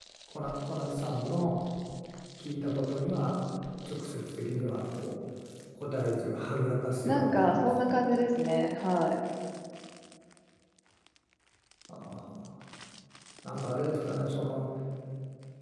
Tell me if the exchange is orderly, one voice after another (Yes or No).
No